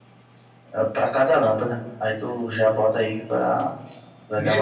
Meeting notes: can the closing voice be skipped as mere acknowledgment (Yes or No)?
No